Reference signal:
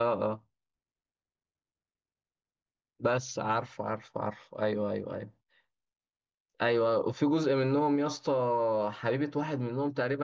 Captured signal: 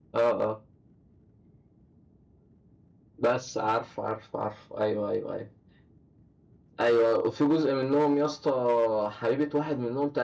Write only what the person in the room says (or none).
none